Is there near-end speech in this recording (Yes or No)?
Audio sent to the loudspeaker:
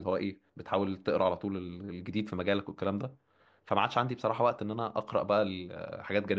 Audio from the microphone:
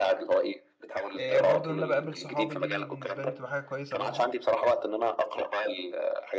Yes